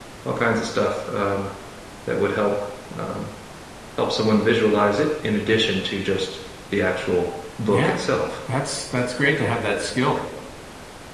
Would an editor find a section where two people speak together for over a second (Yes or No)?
No